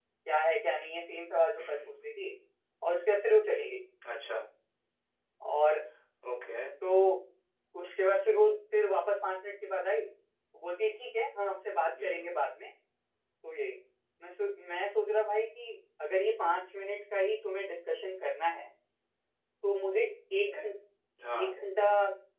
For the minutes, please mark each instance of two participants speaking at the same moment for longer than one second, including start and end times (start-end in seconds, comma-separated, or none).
none